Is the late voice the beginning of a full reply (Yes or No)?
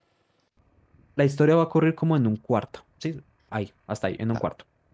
Yes